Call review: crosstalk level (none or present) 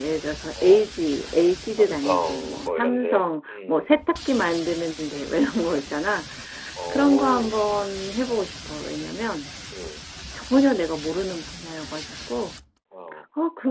present